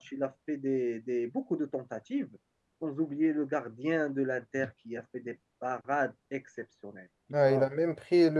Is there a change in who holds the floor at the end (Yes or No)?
Yes